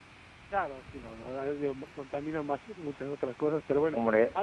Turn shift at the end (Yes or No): No